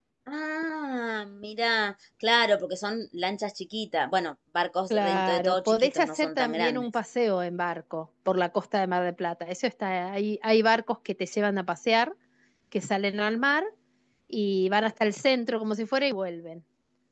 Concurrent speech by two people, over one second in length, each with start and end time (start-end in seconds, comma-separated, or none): 4.9-6.8